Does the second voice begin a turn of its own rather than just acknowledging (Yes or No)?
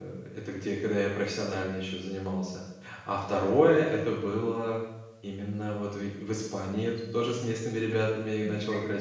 No